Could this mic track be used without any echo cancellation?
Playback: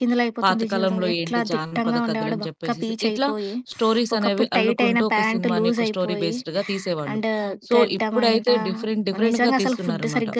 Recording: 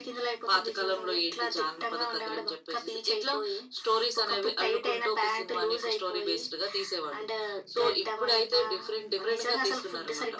No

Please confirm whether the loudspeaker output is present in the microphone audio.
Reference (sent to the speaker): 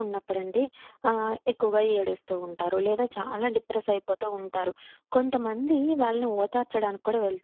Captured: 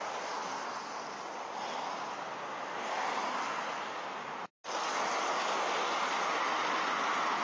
No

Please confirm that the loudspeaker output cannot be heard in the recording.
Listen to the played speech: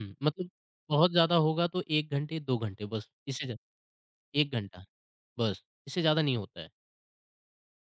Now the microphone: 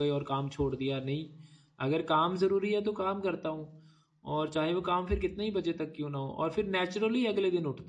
Yes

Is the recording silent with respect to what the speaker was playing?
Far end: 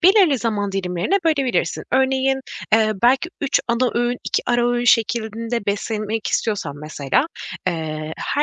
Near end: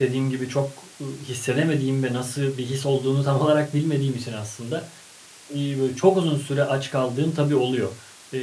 Yes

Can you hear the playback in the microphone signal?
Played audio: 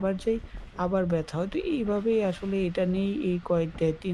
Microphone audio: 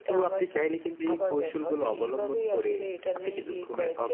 Yes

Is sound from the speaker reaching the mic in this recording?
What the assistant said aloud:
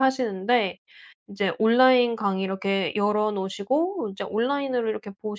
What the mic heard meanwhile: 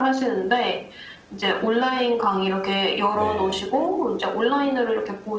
Yes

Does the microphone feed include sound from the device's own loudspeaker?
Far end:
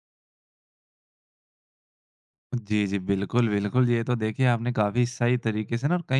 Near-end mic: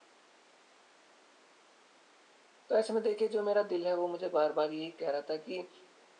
No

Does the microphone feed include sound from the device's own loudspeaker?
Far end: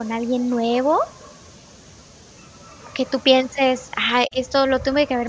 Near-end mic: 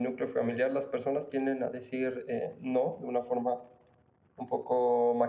No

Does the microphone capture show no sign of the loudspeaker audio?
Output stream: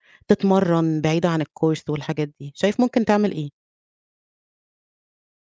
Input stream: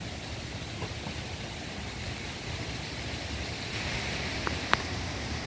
Yes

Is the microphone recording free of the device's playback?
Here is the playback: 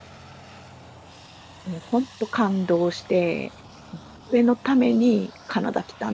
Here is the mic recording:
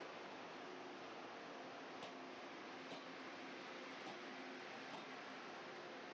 Yes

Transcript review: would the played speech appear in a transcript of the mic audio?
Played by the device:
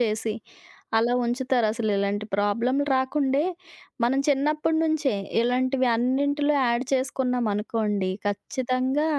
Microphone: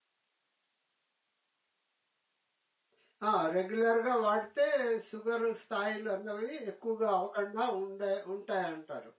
No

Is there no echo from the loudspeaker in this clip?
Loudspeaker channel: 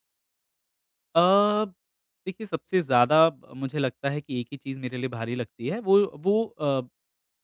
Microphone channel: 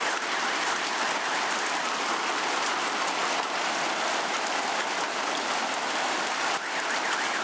Yes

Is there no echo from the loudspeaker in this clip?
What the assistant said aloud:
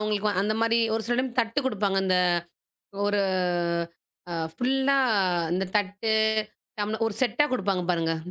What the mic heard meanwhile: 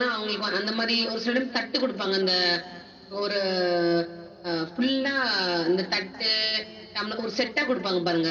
No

